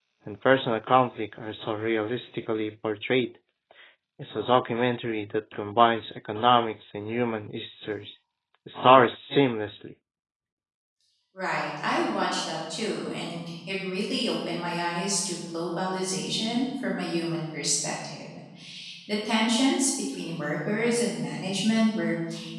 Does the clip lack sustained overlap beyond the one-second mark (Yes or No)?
Yes